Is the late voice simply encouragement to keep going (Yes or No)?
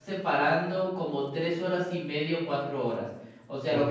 Yes